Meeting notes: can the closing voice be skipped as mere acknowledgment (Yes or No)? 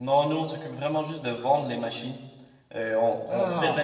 Yes